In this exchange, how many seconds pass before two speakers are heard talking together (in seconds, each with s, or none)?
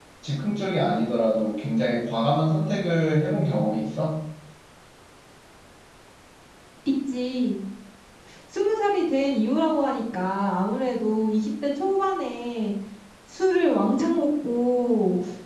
none